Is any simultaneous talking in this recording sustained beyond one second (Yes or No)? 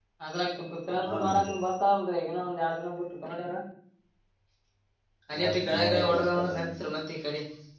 Yes